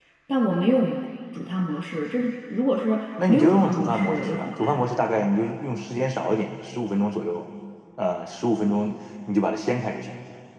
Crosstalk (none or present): present